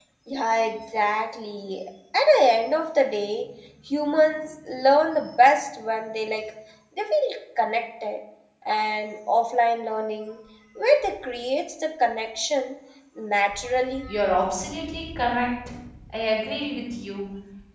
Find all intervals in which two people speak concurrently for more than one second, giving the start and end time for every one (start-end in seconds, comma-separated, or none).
none